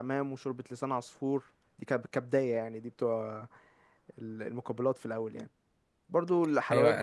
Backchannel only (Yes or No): No